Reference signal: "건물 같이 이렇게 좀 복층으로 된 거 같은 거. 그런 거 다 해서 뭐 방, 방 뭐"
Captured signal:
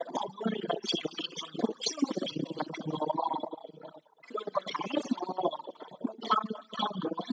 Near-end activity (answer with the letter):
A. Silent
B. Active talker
A